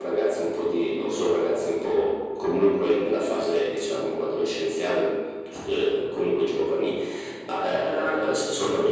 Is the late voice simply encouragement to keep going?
Yes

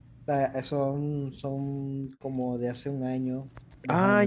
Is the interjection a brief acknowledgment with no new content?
No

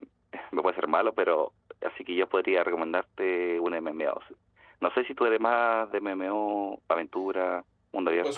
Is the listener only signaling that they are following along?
No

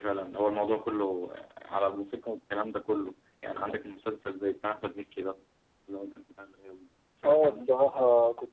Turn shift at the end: Yes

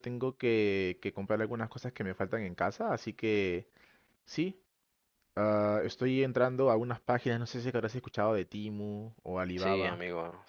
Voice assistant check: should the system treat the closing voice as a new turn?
Yes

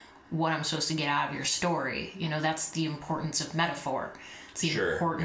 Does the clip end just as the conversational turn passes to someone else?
No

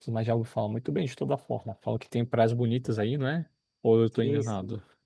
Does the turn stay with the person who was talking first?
No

